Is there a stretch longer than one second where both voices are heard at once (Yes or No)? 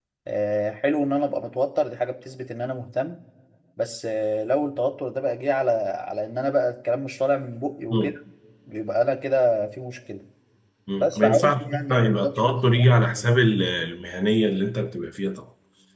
Yes